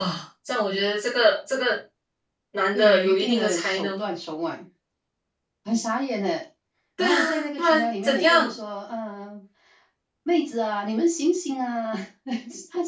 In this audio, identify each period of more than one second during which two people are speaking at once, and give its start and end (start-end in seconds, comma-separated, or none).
2.7-4.0, 7.0-8.6